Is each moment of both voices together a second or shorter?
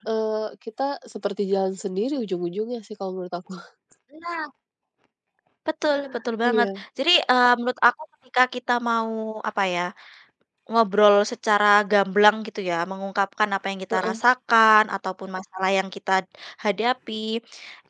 Yes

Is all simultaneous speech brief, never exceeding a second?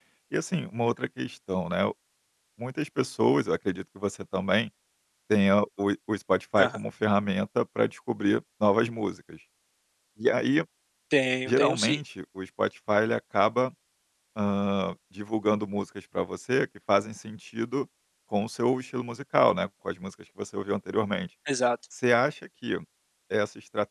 Yes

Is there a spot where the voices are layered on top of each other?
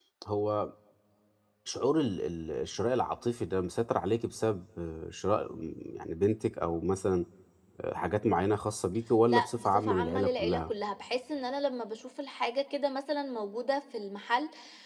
Yes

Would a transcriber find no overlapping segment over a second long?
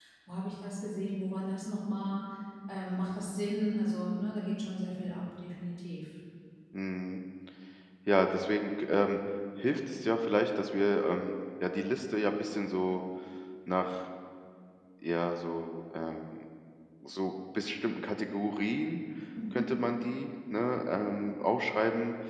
Yes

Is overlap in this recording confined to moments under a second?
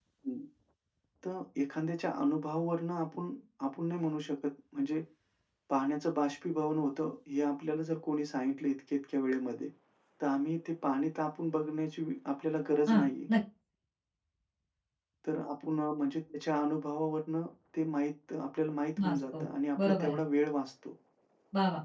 Yes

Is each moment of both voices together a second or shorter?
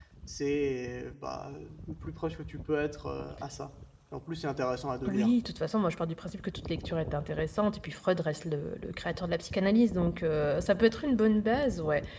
Yes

